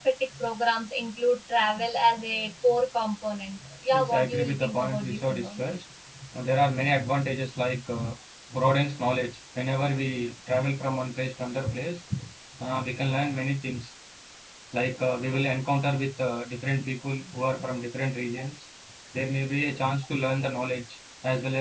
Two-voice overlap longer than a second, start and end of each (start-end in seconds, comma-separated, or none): 3.9-5.6